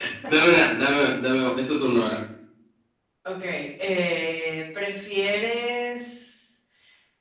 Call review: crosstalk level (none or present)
none